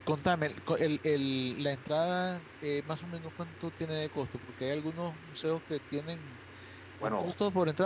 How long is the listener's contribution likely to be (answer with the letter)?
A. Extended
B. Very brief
B